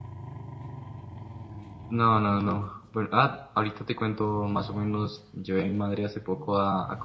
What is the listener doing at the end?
listening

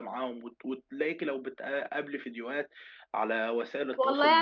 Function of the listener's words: taking over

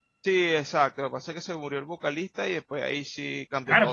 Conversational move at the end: taking over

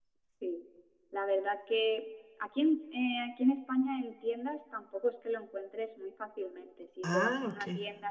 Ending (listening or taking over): listening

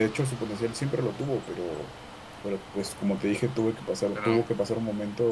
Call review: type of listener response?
listening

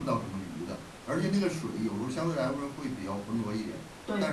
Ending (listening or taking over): listening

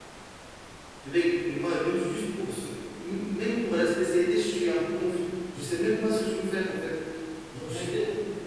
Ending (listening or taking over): taking over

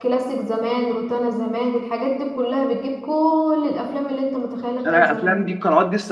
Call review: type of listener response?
taking over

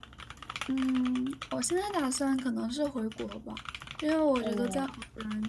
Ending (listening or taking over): listening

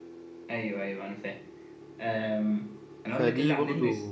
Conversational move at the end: listening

